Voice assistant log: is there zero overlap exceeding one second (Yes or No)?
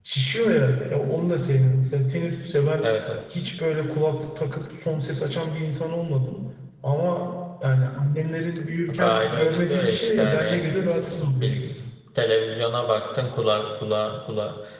No